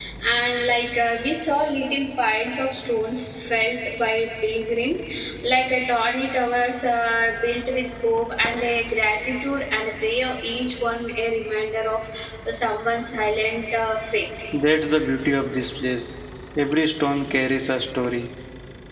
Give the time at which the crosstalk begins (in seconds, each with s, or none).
none